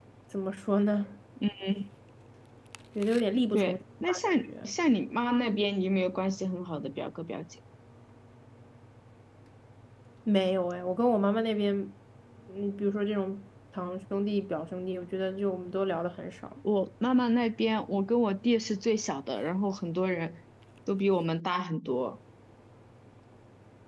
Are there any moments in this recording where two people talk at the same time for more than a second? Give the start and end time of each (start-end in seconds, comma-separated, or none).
3.5-4.7